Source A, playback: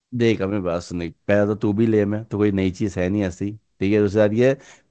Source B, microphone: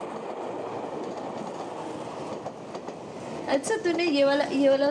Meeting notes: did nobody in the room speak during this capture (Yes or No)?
No